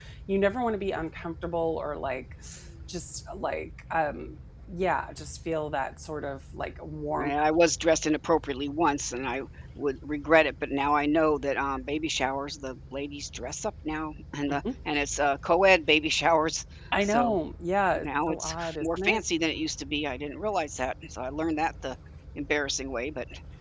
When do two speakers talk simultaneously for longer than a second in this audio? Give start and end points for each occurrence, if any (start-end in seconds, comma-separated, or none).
17.9-19.2